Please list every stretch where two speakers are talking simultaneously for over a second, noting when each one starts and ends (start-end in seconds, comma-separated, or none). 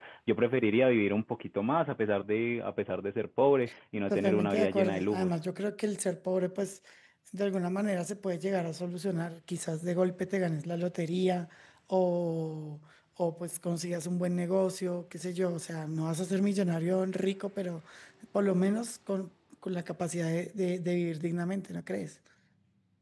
4.1-5.3